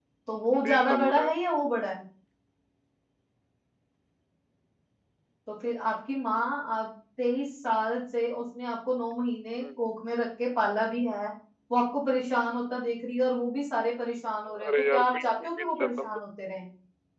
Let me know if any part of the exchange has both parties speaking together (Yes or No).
Yes